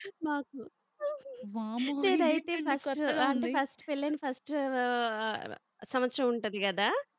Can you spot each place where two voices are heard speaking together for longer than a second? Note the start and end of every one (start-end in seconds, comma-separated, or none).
2.0-3.6